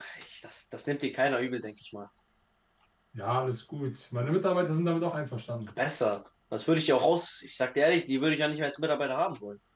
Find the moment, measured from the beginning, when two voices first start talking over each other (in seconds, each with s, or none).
none